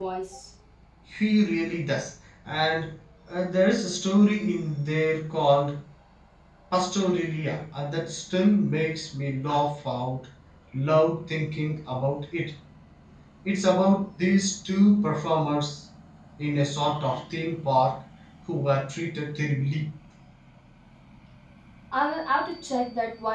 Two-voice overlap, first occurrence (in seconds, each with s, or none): none